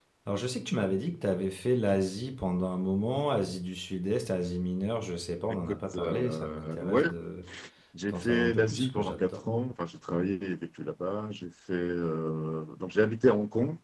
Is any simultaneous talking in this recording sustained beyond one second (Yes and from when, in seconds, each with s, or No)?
Yes, from 5.7 s